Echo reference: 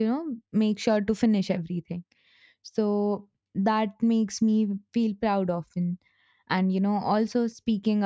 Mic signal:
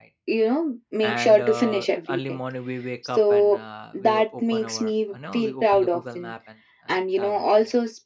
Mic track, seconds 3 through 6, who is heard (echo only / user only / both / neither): both